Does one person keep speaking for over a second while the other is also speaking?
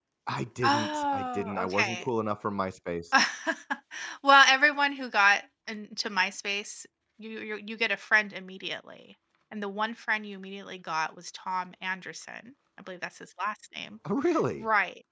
Yes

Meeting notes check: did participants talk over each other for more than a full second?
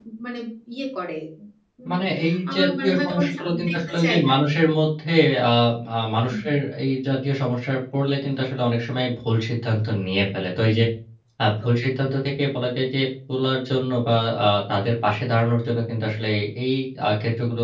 Yes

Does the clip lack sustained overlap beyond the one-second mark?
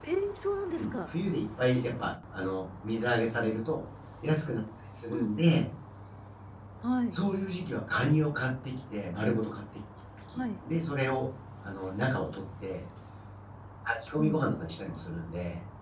Yes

